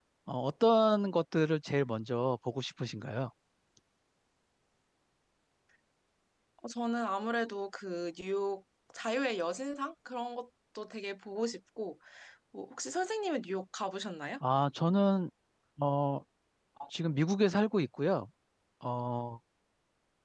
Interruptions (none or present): none